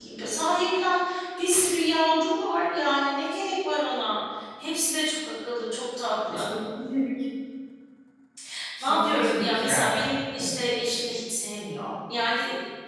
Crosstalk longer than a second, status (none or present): present